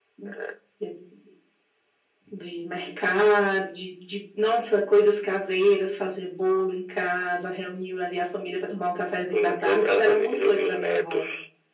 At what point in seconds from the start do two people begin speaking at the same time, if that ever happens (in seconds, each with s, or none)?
9.3 s